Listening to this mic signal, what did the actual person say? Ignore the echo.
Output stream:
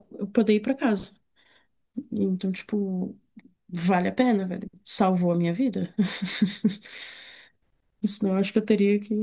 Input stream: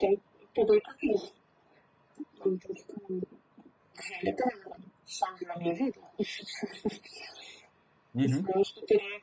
Uhum,

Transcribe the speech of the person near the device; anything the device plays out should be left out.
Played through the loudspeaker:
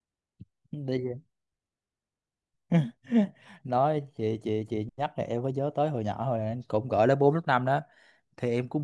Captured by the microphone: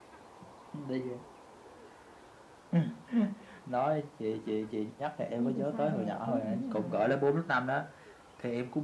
Đi từ xa về đã thấy mẹ đứng ở ngoài rồi.

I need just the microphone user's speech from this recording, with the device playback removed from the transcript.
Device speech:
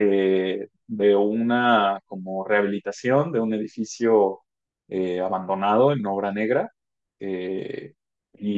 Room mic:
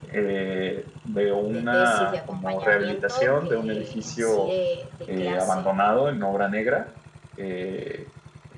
de tesis de acompañamiento que en sí de, de clase.

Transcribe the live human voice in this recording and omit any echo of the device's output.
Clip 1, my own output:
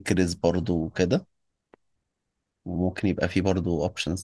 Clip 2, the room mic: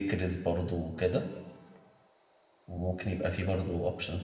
none

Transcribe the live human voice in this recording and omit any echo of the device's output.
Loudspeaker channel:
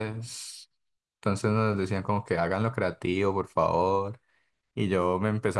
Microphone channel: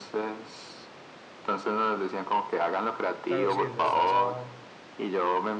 Claro, sí, les da esa,

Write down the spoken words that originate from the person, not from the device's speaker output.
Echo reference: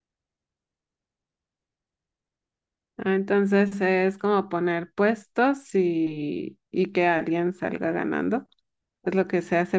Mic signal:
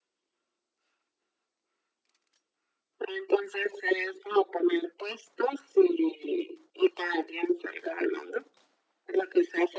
none

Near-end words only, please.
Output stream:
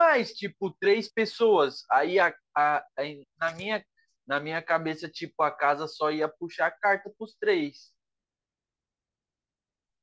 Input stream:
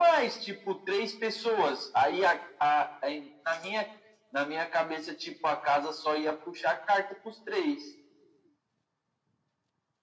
none

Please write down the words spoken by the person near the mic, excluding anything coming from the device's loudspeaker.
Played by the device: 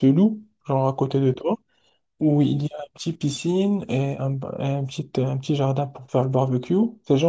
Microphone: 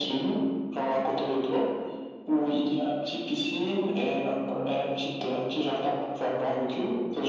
none

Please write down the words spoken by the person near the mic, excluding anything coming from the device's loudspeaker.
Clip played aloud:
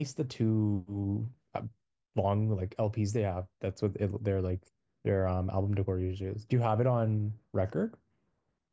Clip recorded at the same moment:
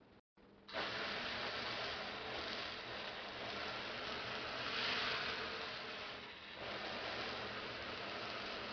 none

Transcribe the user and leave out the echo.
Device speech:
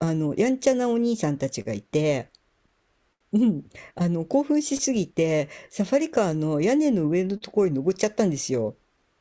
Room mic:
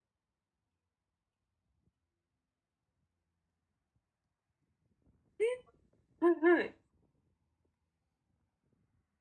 えはい、はい。

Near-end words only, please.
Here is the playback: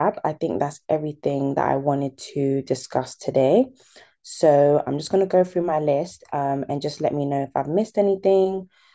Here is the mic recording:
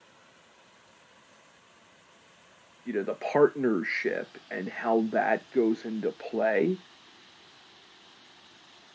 you know, the partnership and how that goes into play,

